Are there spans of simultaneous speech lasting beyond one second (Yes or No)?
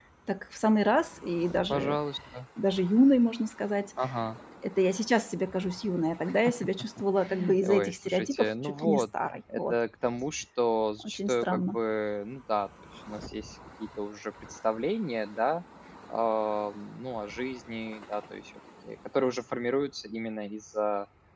Yes